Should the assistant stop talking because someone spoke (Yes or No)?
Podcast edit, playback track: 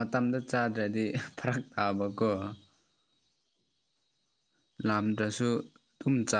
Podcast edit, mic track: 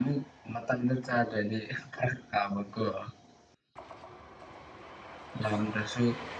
No